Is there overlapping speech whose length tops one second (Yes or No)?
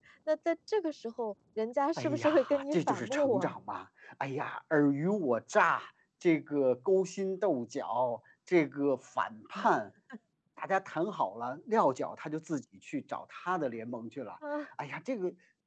Yes